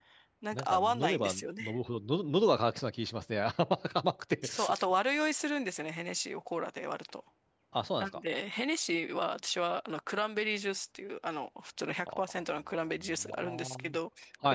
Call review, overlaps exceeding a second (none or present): present